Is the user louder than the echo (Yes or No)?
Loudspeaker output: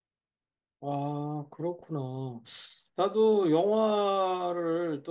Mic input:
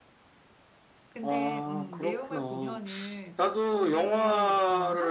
No